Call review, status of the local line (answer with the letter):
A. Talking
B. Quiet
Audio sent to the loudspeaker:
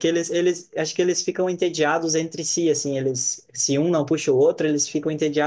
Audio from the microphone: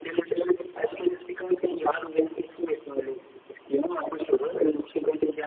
B